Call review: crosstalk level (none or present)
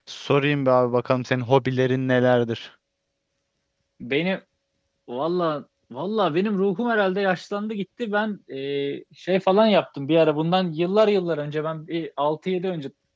none